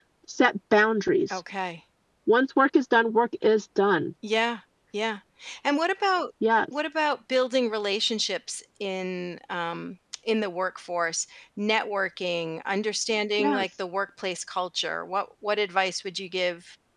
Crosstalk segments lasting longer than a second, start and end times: none

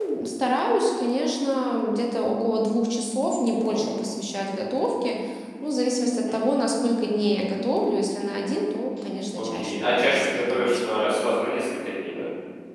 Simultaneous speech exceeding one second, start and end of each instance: 9.4-10.8

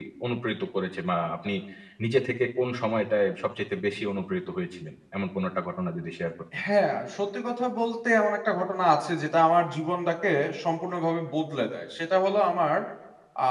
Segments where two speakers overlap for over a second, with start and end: none

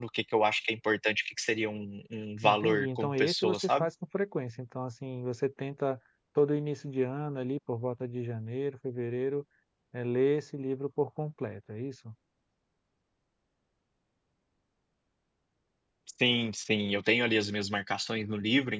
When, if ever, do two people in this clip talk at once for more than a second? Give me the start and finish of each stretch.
2.4-3.9

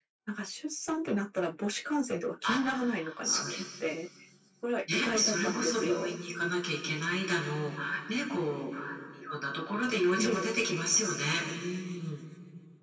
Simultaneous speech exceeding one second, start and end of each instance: 4.9-6.1

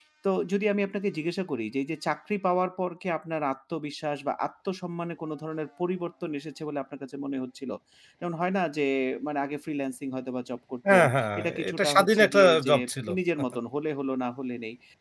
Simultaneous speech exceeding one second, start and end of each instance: 11.4-12.7

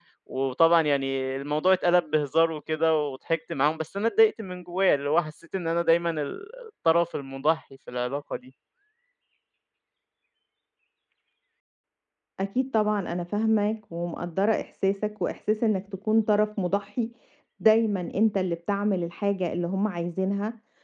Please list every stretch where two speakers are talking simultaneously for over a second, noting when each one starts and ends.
none

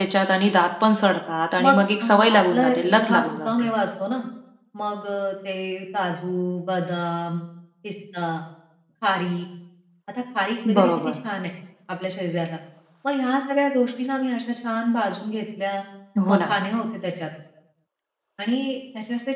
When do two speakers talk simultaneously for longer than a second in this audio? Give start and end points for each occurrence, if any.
1.6-3.7

